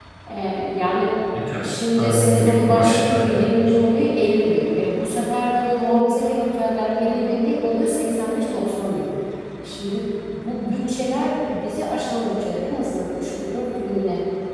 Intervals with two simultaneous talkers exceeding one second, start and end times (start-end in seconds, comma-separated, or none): 1.6-3.7